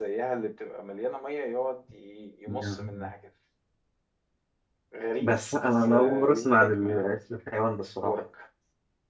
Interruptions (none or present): present